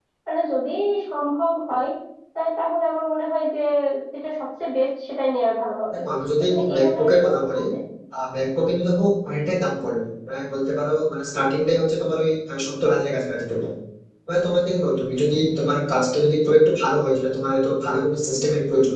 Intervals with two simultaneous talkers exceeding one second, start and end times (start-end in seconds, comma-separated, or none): 6.4-7.6